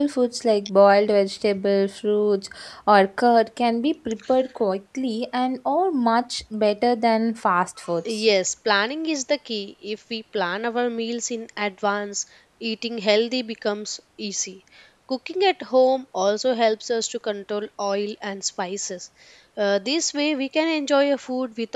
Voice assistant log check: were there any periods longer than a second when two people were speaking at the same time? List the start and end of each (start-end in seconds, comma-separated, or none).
none